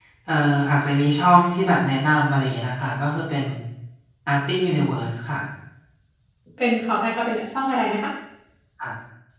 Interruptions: none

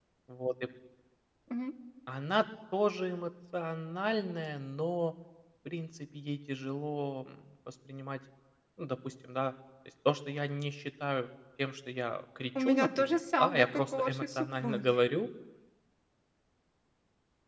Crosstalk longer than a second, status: present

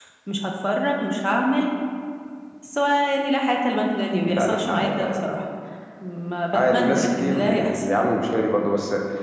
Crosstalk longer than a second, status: present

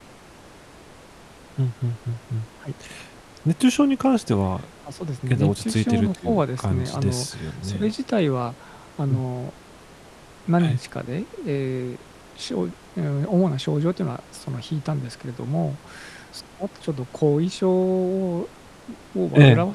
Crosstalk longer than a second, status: present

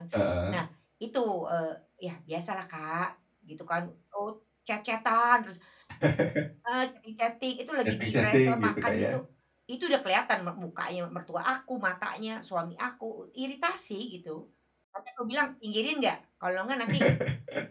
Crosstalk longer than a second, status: present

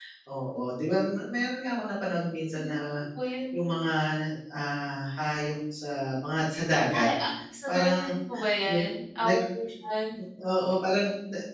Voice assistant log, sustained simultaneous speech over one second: none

